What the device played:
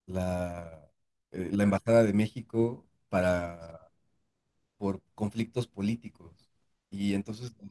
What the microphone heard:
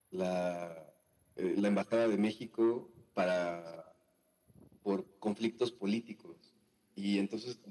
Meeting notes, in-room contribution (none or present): none